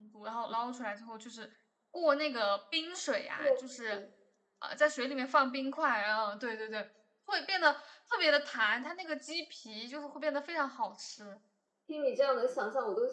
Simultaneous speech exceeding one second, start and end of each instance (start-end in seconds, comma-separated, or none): none